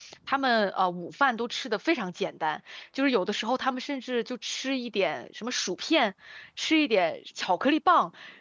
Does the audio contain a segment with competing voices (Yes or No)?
No